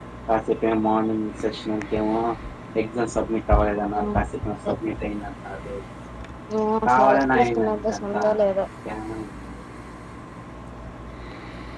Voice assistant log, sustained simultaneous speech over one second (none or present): present